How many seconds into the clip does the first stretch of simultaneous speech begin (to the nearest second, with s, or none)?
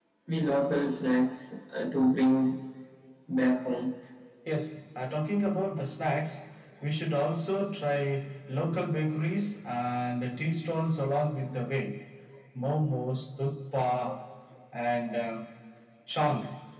none